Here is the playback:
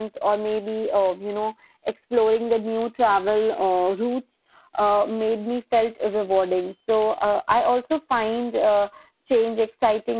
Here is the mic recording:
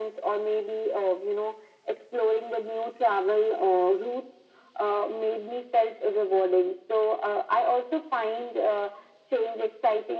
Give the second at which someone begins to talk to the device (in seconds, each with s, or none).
none